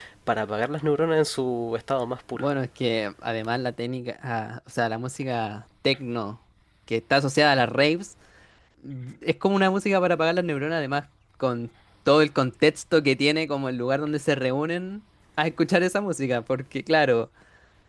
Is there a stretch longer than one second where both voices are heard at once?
No

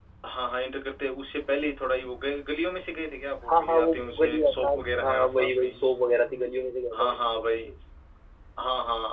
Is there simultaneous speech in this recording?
Yes, from 3.5 s

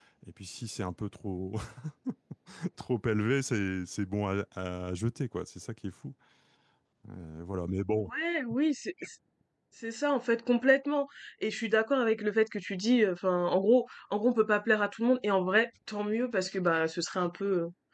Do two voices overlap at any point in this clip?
No

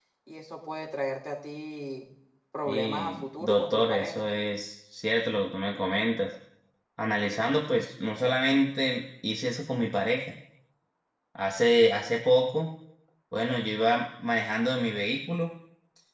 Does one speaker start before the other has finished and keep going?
Yes, from 2.7 s

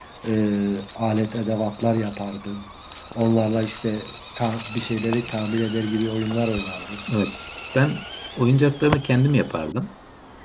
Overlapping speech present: No

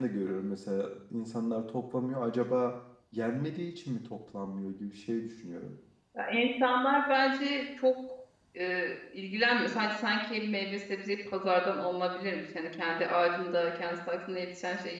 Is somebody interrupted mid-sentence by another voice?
No

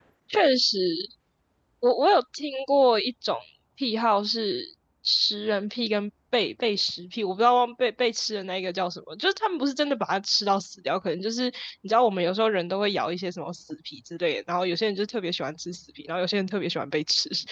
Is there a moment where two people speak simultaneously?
No

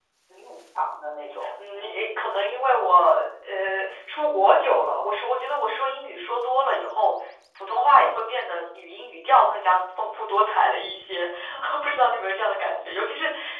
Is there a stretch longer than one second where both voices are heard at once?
No

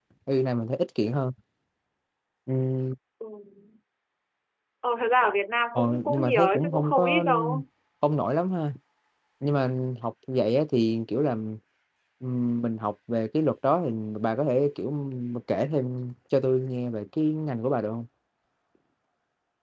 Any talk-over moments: Yes, from 5.8 s

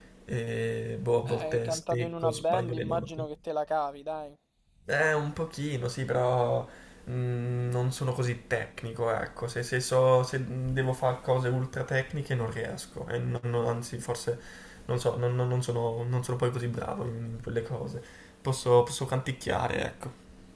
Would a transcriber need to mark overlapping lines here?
Yes, from 1.2 s

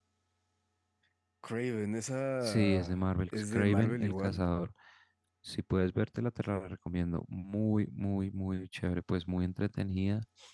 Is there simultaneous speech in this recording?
Yes, from 2.4 s

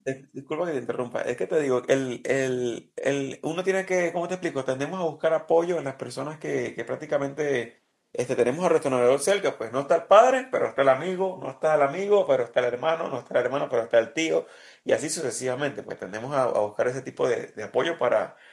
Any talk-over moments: No

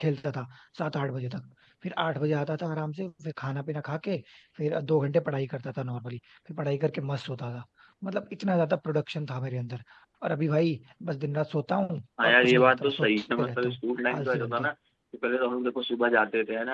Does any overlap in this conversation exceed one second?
Yes, from 12.2 s

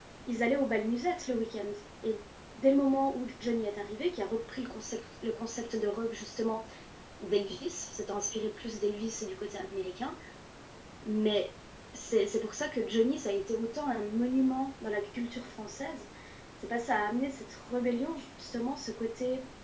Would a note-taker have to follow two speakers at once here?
No

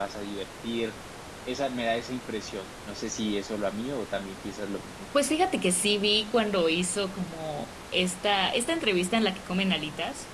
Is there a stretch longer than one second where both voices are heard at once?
No

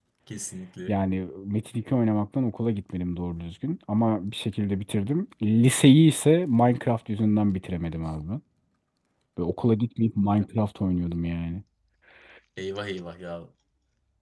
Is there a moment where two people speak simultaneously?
No

